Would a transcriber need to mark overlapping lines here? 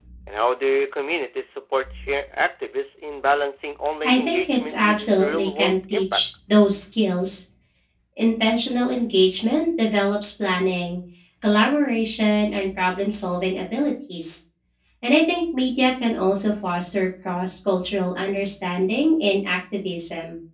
Yes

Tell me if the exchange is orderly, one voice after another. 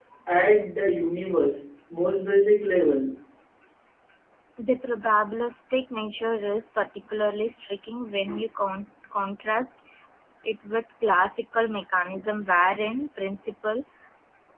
Yes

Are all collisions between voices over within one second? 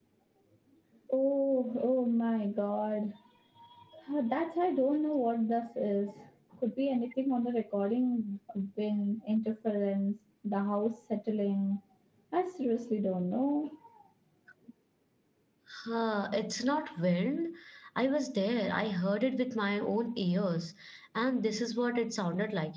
Yes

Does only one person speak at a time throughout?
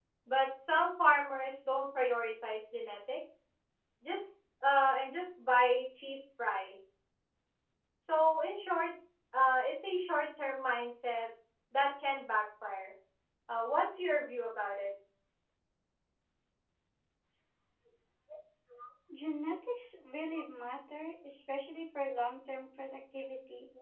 Yes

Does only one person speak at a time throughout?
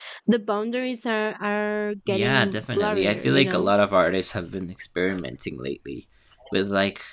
No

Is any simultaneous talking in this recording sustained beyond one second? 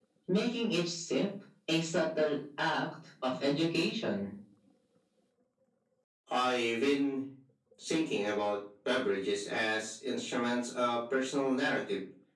No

